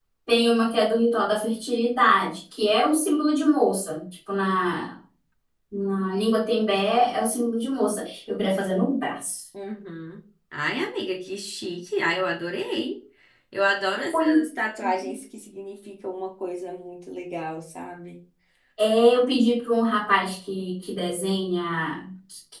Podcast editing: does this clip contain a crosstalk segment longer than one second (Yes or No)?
No